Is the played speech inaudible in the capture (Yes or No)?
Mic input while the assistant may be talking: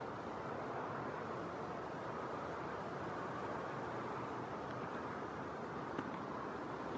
Yes